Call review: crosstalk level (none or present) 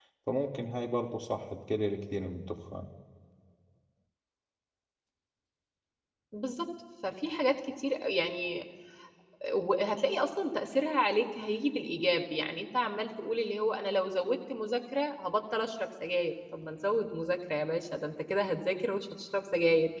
none